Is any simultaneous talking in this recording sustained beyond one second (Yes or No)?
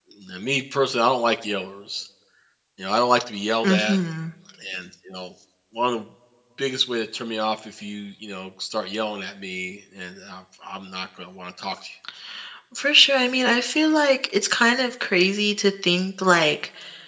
No